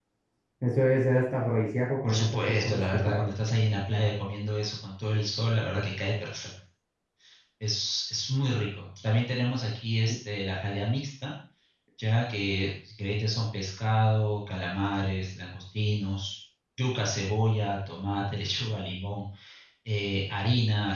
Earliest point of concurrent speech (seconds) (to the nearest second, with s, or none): 2 s